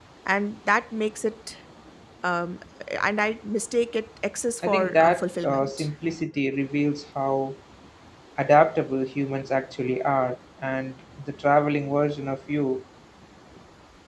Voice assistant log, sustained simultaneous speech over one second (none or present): present